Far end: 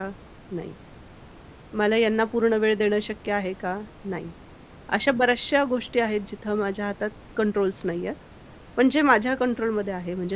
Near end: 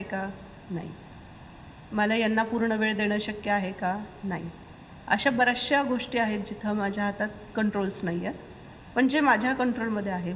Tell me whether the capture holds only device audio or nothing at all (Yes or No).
Yes